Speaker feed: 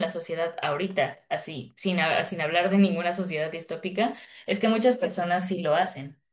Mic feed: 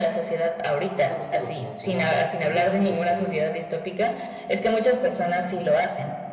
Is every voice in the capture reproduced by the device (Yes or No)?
No